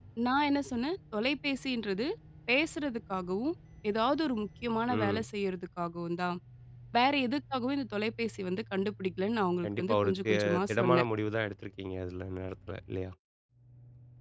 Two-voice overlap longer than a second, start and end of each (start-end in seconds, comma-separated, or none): 9.6-11.1